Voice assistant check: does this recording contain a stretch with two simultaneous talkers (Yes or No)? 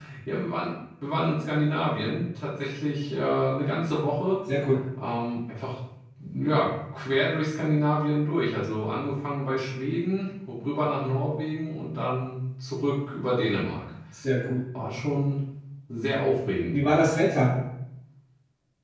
No